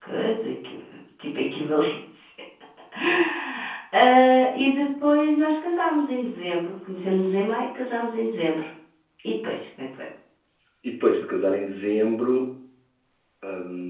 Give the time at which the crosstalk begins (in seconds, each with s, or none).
none